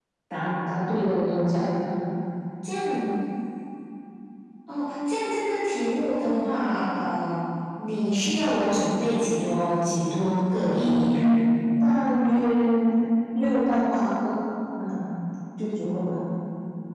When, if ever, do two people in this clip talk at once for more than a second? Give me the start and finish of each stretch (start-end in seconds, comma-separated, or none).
none